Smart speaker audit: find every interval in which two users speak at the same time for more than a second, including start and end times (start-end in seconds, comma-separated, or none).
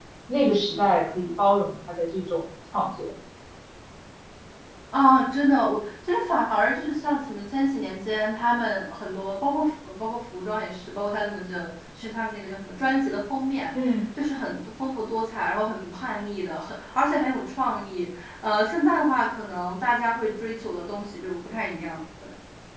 none